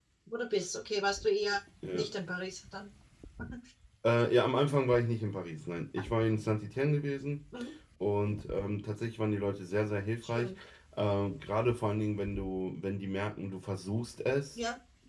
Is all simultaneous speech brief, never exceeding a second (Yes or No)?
Yes